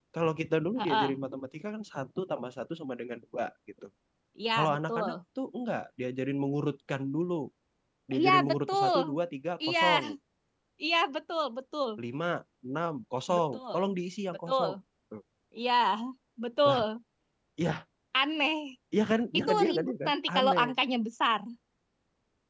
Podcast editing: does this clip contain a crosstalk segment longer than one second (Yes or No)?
Yes